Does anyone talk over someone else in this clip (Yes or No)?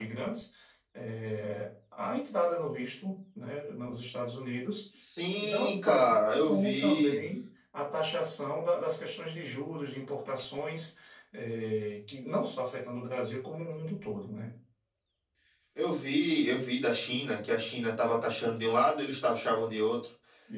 Yes